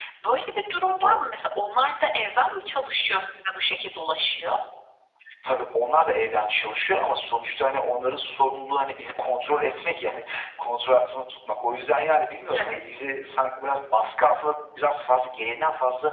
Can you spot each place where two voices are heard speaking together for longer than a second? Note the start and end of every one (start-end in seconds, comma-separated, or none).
none